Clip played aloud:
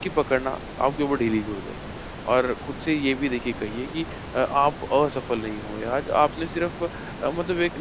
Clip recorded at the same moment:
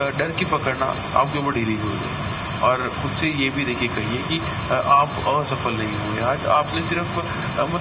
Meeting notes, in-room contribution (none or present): none